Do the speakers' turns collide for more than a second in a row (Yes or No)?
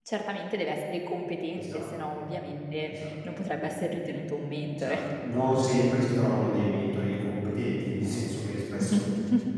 No